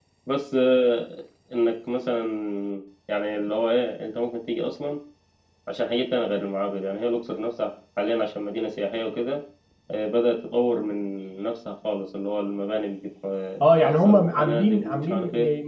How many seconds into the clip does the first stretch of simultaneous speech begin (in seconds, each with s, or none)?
13.6 s